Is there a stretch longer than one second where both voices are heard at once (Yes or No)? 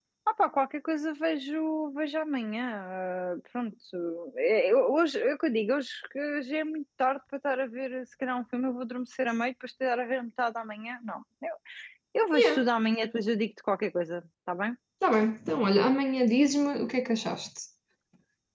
No